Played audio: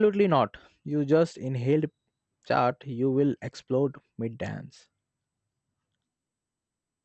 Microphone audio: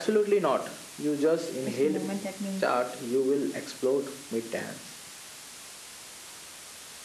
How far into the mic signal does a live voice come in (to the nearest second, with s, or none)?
2 s